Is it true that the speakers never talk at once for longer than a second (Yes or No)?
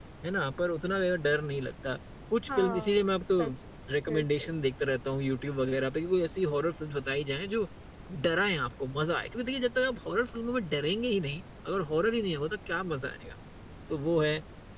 Yes